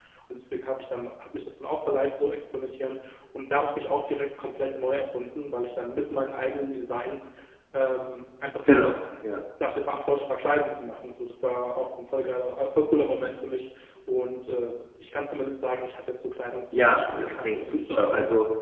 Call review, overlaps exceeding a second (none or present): present